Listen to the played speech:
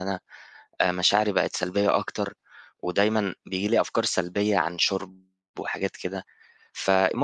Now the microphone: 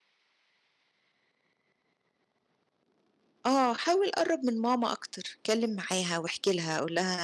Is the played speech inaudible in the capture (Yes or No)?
Yes